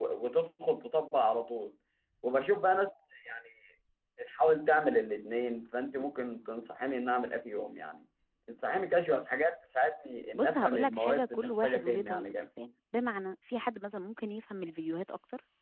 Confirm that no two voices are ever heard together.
No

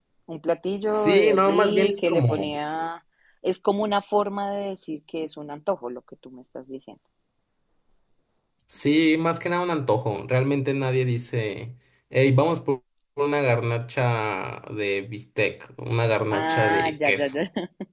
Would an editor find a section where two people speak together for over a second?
Yes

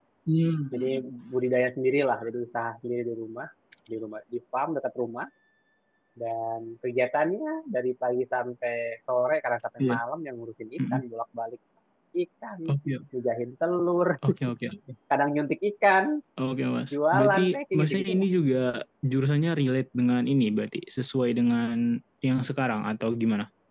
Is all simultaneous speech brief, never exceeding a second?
No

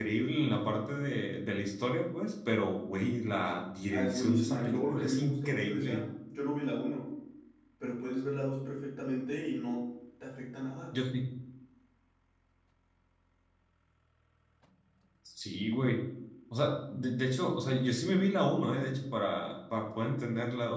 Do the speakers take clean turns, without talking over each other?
No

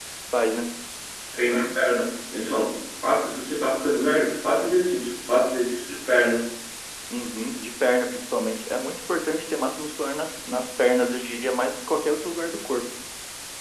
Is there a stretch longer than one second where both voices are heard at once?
No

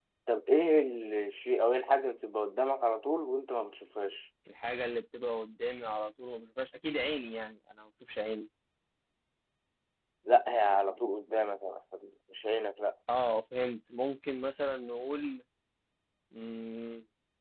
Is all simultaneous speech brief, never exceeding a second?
Yes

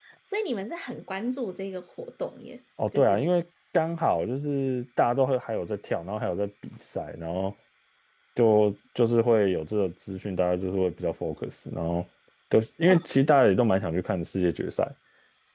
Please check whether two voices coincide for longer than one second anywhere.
No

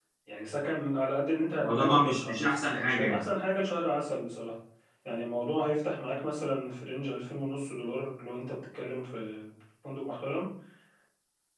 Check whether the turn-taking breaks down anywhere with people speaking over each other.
Yes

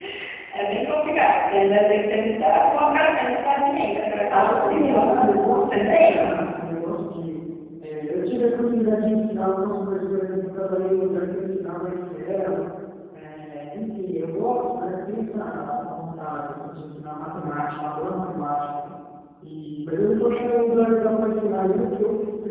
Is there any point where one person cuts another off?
Yes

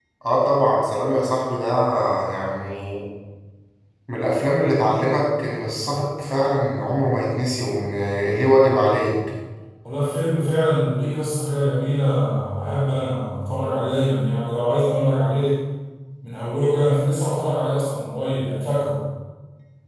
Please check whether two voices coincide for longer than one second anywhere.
No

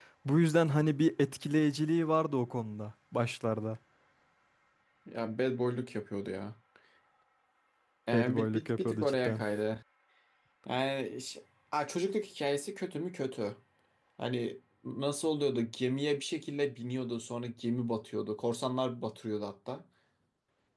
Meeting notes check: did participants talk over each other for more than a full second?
Yes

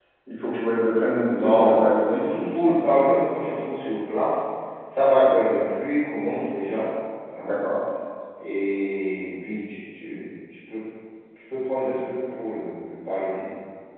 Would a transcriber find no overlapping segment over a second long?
No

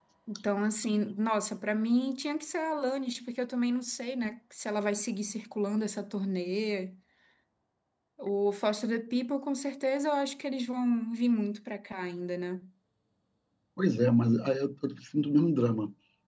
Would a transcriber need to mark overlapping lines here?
No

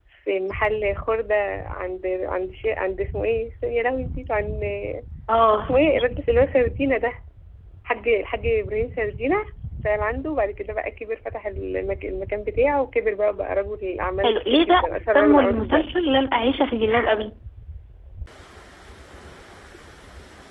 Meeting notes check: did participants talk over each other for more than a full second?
Yes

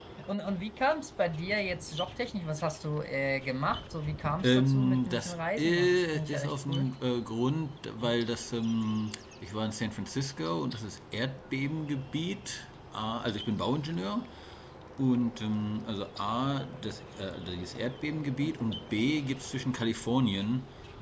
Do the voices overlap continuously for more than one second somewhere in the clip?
Yes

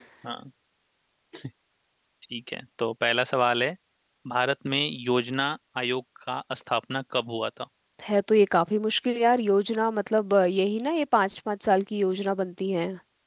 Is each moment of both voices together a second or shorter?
Yes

